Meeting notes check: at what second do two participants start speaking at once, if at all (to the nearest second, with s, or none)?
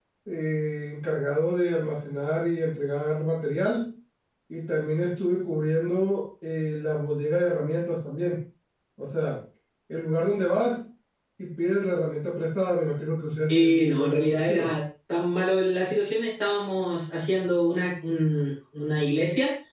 13 s